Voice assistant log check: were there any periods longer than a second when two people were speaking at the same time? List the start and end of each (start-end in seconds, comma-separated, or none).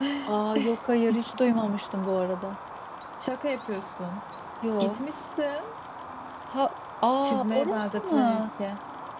7.2-8.5